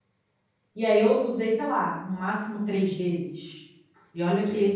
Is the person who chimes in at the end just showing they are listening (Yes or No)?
Yes